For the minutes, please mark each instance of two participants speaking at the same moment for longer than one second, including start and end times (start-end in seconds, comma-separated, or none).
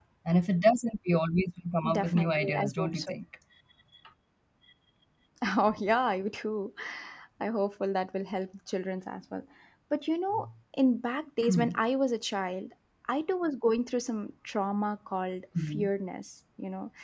1.9-3.1